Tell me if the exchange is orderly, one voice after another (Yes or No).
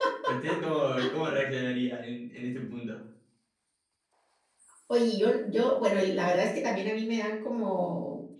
Yes